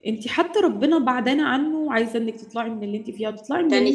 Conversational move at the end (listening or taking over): taking over